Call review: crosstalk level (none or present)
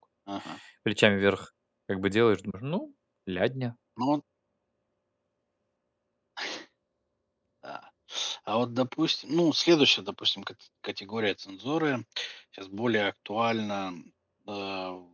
none